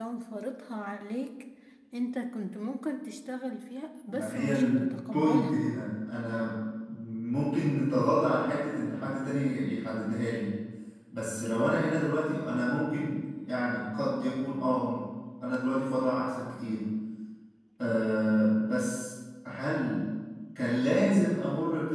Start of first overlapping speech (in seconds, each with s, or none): 4.1 s